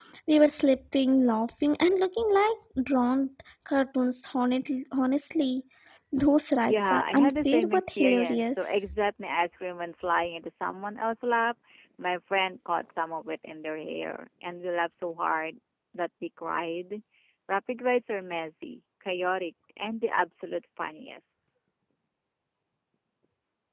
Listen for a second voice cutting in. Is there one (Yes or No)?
Yes